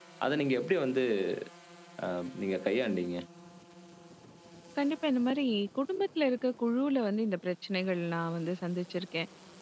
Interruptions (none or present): none